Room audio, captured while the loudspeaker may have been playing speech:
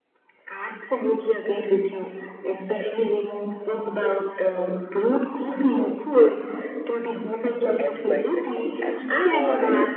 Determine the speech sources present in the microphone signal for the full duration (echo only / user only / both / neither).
both